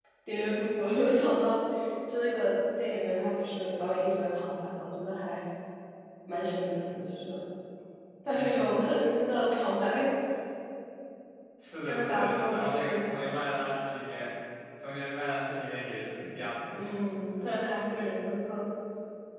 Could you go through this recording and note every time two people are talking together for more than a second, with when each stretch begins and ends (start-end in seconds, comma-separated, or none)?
11.8-13.3